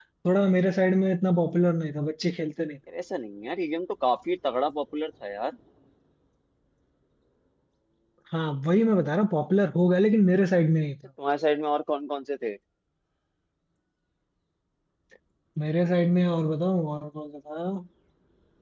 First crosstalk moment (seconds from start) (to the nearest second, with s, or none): none